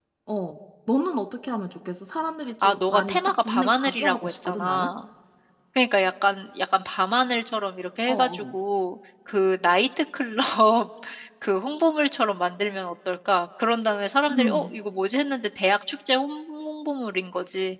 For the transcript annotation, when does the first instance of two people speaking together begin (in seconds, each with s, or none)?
2.6 s